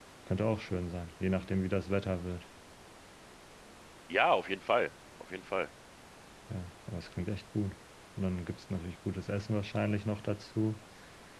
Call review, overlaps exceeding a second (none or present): none